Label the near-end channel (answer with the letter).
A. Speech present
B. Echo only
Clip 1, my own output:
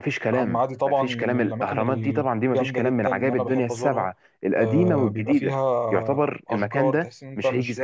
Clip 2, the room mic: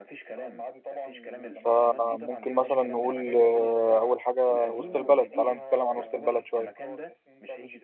A